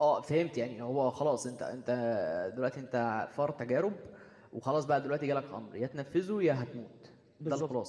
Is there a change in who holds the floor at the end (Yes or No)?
Yes